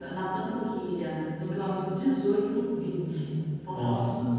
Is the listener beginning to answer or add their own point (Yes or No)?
No